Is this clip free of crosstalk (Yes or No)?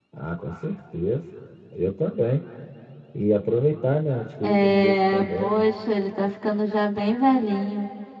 No